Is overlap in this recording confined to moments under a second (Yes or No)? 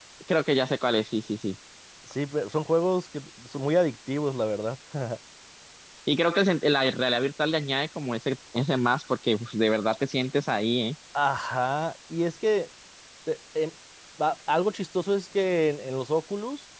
Yes